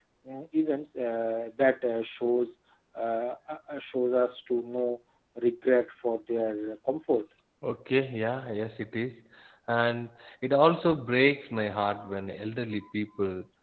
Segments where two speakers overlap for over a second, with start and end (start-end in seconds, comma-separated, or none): none